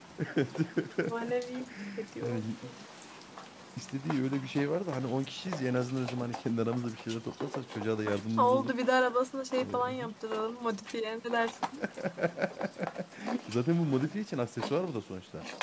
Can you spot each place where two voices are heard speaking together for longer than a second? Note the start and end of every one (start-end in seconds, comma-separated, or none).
none